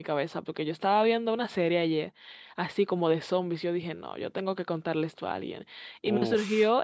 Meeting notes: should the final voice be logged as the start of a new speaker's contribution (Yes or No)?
No